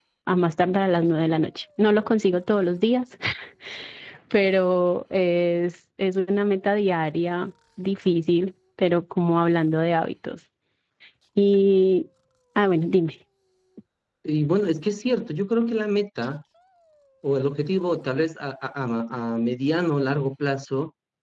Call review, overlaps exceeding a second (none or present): none